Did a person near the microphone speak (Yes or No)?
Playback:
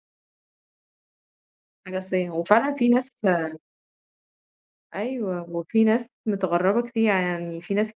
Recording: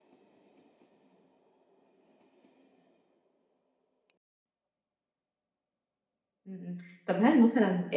Yes